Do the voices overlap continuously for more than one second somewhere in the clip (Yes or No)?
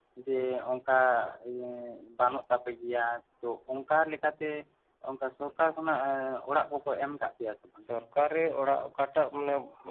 No